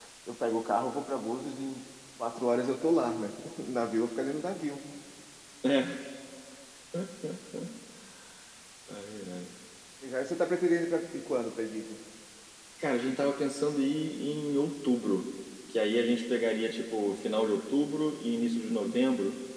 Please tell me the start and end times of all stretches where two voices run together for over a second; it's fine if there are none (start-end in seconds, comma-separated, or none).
none